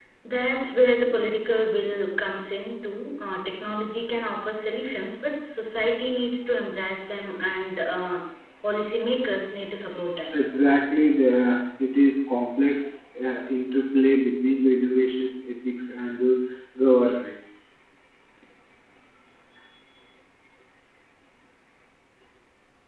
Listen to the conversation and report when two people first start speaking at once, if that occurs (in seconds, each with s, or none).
none